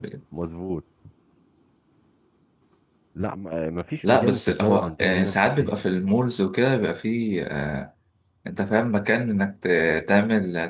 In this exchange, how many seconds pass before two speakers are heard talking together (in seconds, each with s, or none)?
4.0 s